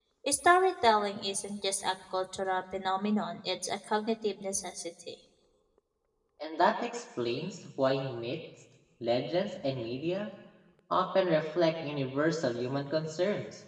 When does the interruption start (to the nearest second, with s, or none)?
none